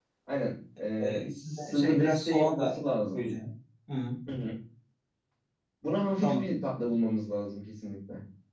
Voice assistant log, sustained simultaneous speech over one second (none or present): present